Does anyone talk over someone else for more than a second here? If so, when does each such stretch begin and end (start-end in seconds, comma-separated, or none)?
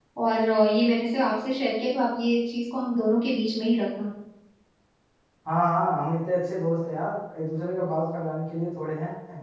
none